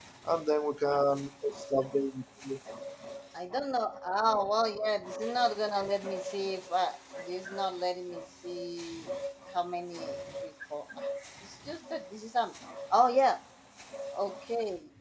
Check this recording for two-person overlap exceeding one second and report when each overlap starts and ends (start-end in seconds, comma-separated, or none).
none